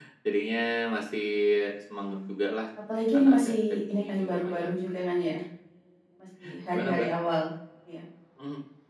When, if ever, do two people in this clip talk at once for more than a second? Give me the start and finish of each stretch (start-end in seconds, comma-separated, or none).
3.1-4.7